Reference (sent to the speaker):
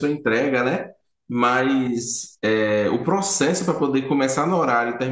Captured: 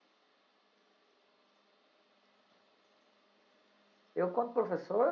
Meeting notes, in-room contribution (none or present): present